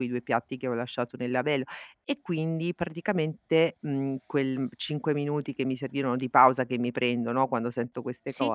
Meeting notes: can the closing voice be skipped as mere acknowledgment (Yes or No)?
Yes